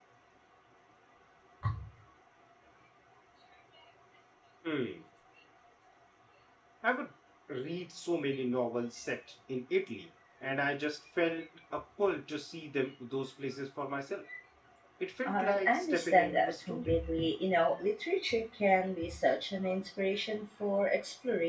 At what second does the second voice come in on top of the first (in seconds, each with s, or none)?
15.3 s